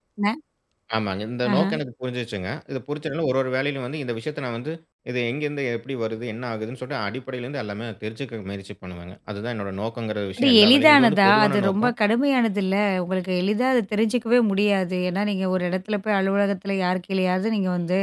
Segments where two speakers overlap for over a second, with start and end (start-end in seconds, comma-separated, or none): 10.4-11.9